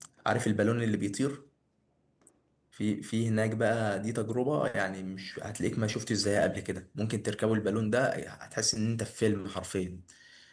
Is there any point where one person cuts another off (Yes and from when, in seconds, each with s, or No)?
No